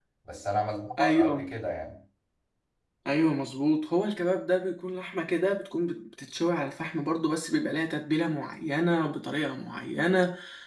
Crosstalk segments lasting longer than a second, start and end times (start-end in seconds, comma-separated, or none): none